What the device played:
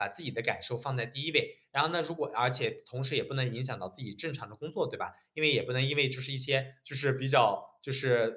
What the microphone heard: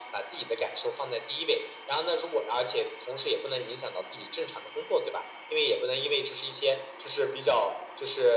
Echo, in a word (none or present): present